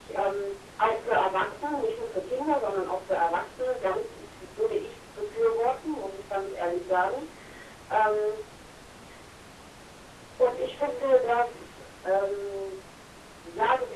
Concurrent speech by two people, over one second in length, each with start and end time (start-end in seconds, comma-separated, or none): none